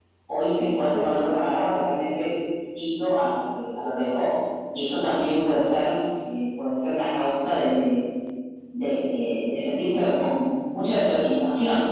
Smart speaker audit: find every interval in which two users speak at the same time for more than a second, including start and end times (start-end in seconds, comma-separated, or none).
none